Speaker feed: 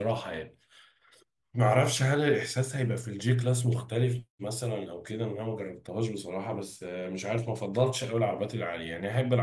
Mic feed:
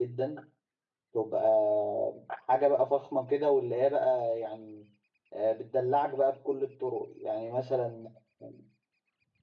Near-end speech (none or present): present